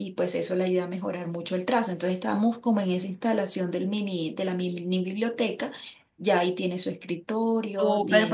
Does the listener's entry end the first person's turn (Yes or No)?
Yes